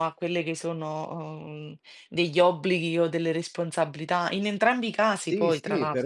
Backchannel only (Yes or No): No